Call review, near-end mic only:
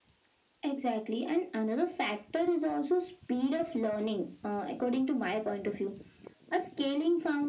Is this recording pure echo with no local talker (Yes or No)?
Yes